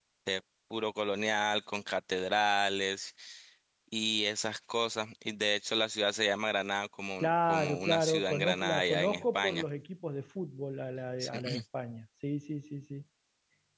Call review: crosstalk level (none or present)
present